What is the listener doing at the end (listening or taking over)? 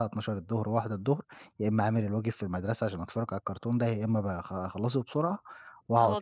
taking over